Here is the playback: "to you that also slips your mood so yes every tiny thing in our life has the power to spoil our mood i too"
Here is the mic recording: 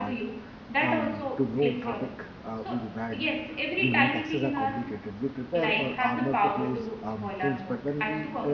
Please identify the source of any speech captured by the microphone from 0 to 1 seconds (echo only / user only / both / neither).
both